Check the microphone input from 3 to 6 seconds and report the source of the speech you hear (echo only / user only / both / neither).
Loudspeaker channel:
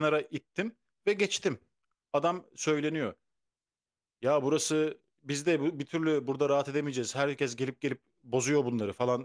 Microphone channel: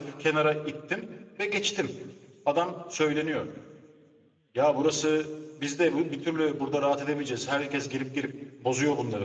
echo only